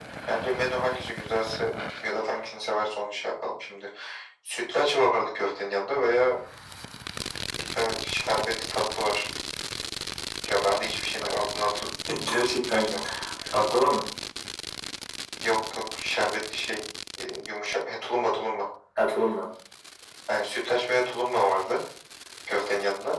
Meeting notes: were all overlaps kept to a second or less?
Yes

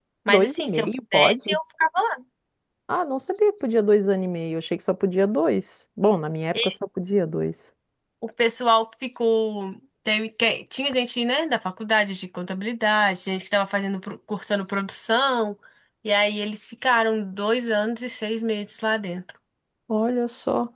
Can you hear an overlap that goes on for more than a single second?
Yes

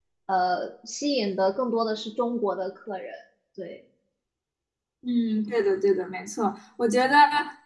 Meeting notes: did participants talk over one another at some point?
No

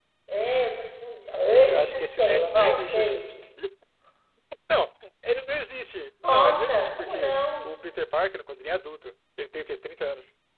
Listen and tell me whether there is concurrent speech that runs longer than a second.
Yes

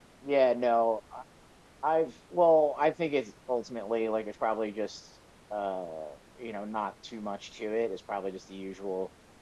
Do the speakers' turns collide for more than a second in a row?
No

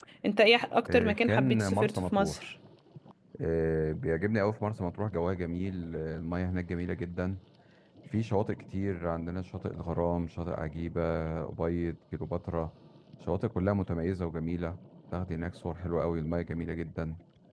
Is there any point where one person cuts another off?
Yes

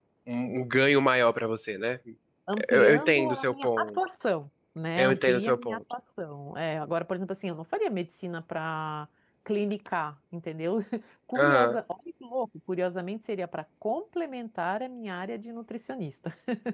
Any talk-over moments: Yes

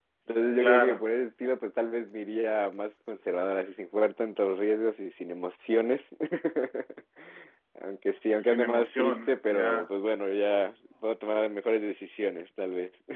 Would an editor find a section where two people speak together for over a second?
Yes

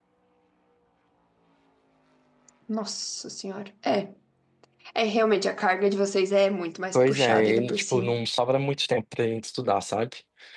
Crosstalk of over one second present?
Yes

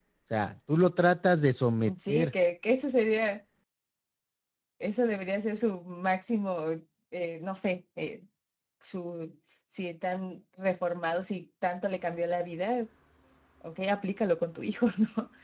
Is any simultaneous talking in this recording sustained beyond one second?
No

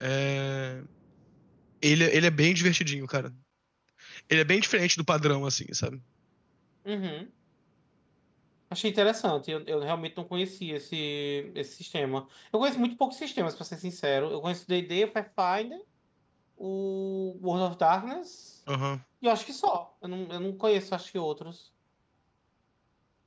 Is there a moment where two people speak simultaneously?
No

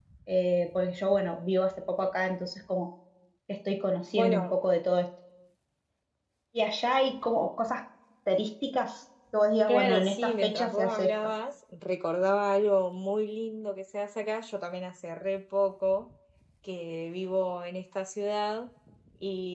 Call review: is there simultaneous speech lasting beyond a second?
Yes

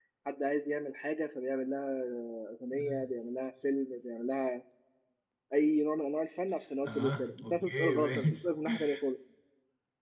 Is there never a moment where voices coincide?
No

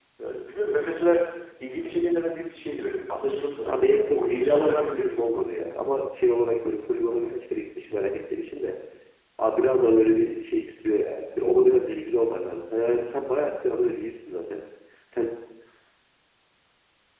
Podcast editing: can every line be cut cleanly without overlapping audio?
No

